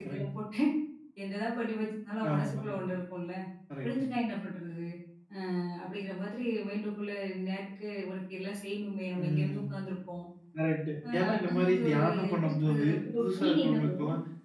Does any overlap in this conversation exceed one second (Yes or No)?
Yes